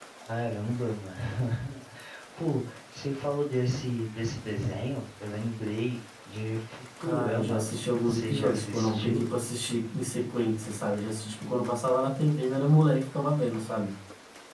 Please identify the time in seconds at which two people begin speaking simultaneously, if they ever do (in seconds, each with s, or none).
7.0 s